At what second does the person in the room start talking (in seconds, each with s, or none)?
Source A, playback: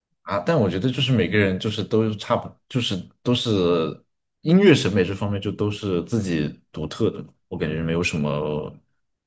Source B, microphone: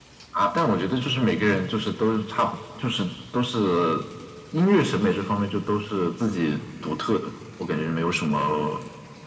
none